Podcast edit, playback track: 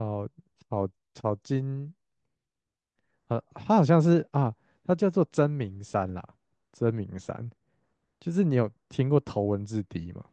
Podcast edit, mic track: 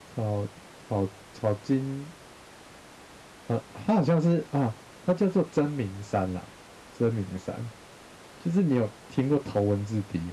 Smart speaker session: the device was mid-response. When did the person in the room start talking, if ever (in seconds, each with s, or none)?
none